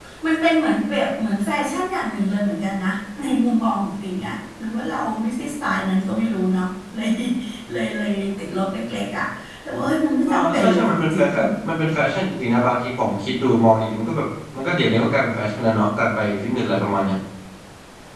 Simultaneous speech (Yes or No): Yes